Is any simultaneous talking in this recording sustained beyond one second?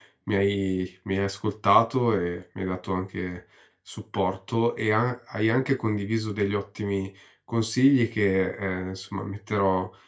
No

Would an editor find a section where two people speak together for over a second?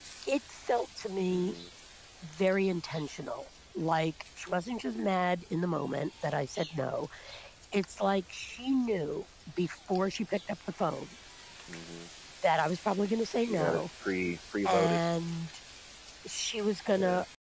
No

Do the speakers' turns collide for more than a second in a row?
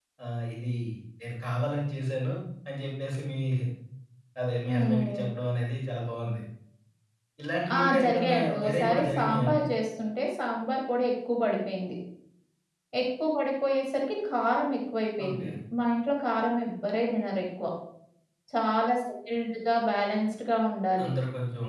Yes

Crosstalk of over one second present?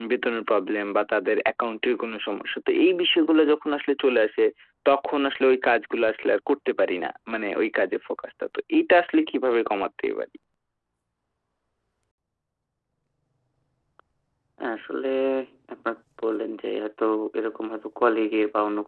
No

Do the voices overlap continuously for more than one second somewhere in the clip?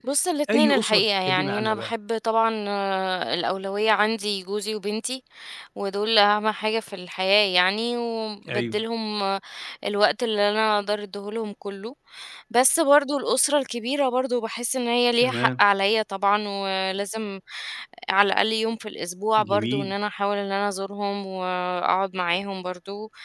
Yes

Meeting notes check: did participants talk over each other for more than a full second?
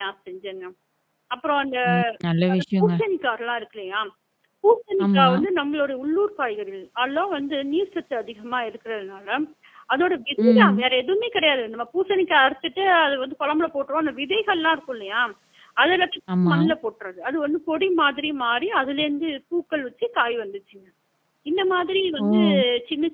No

